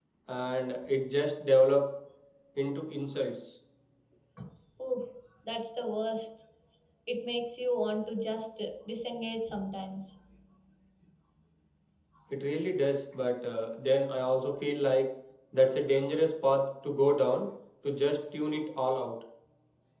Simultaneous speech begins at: none

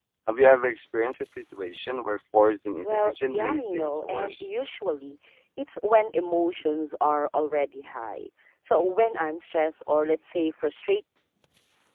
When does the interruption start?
2.8 s

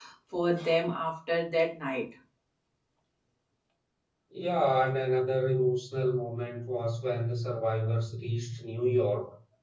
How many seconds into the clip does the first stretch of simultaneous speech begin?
none

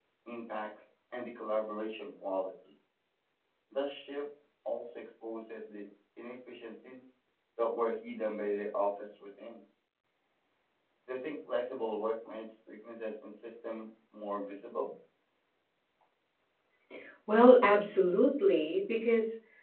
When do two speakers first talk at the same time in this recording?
none

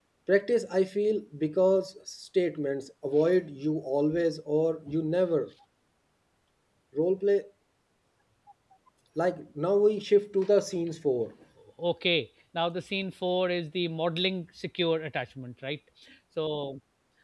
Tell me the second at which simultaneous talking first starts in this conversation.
none

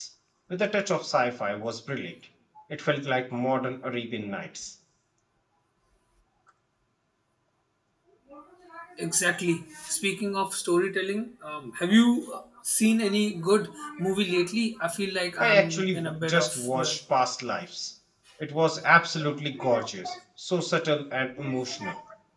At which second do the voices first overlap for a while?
15.4 s

